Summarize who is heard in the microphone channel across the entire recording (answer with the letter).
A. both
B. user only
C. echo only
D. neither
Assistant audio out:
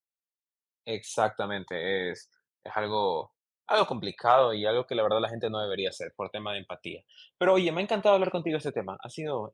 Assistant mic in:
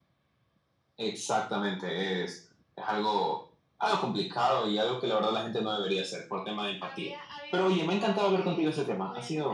A